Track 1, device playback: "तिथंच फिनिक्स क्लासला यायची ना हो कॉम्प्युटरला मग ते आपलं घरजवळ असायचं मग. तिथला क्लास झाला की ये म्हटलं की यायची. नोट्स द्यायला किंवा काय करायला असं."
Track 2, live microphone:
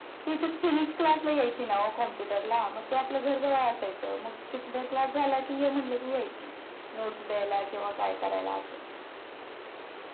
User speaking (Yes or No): No